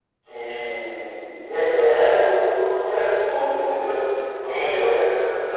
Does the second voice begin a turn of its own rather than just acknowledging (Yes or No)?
No